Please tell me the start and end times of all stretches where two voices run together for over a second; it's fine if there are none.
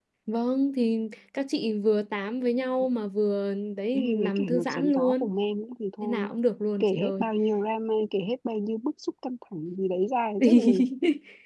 3.9-5.3

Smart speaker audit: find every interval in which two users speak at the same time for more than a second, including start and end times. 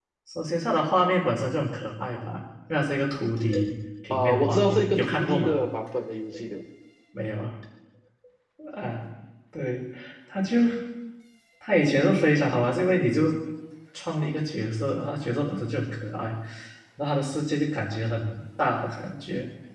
4.1-5.6

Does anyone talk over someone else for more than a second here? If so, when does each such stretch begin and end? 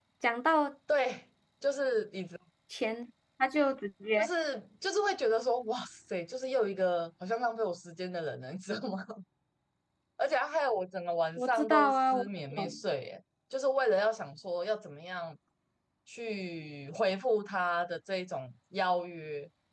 11.4-12.8

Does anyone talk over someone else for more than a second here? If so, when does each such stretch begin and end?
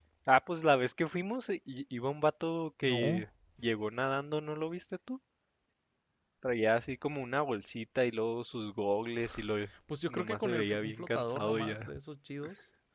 10.1-11.9

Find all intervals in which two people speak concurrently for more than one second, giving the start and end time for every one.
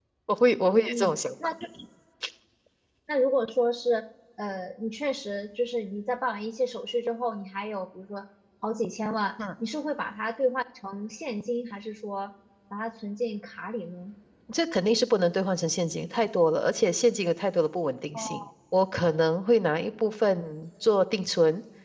none

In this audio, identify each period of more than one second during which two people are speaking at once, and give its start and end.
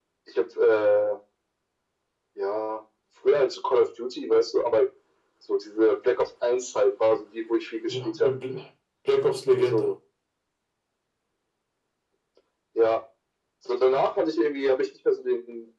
none

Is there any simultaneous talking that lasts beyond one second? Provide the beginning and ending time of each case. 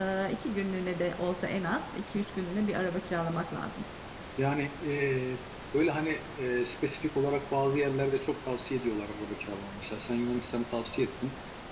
none

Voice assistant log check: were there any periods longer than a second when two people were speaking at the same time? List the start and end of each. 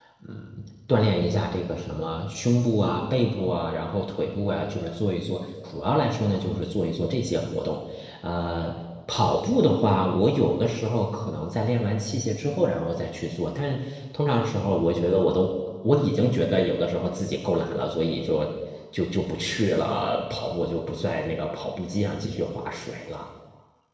none

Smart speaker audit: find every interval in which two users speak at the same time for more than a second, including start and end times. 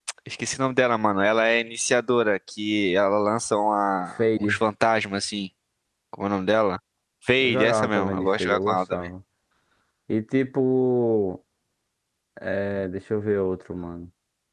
7.4-9.0

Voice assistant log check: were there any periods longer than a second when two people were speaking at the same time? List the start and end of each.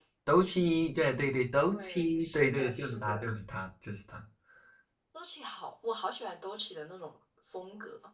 1.7-3.1

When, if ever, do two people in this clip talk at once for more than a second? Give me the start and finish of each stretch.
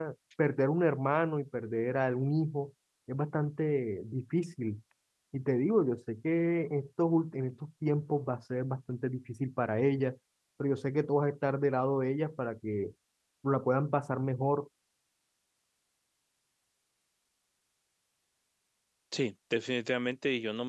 none

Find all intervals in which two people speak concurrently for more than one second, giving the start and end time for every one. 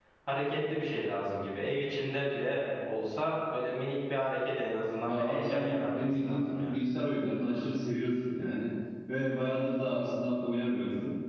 5.1-6.8

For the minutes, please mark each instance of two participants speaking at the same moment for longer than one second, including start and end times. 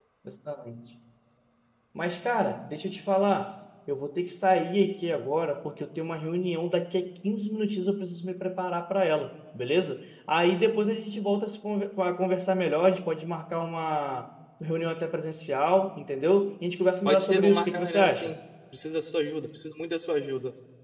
17.1-18.3

